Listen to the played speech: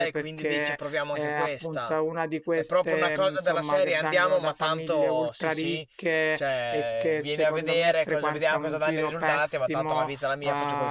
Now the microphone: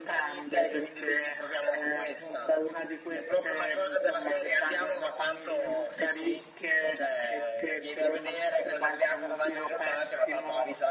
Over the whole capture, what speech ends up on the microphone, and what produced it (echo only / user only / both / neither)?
echo only